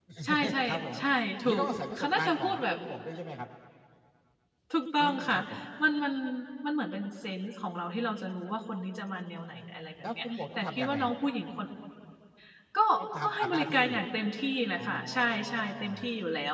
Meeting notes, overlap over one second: present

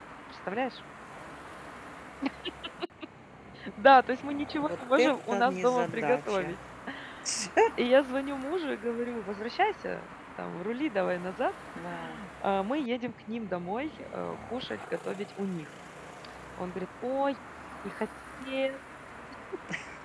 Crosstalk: present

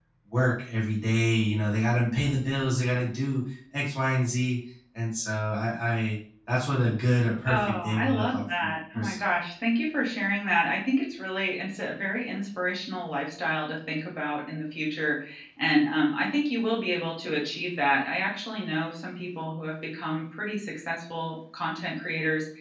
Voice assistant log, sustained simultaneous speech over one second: present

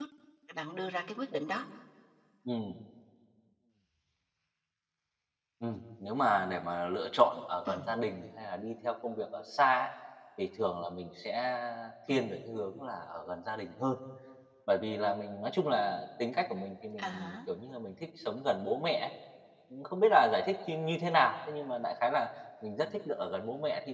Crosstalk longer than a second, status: none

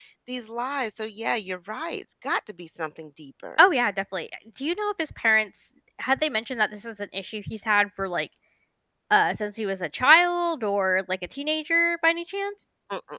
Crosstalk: none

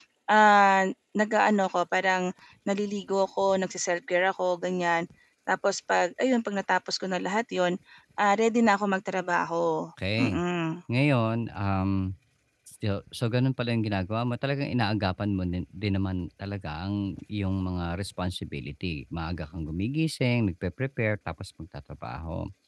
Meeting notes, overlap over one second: none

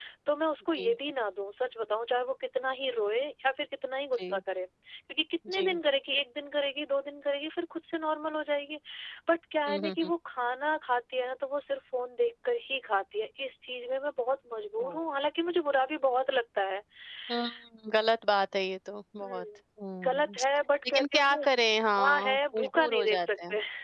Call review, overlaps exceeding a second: present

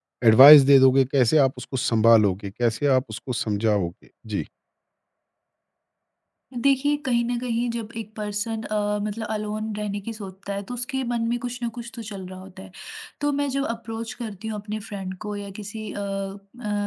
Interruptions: none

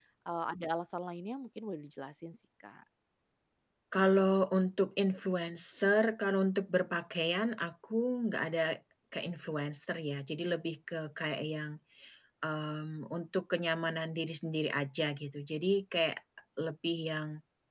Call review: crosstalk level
none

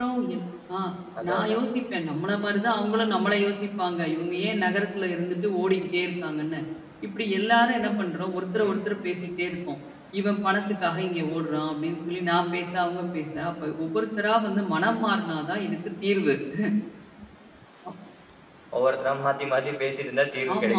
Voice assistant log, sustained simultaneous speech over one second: none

